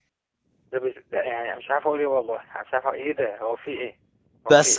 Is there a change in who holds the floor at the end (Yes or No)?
Yes